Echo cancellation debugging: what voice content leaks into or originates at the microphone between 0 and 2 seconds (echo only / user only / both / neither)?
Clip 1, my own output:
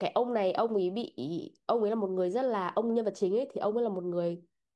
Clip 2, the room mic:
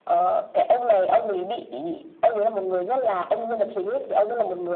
echo only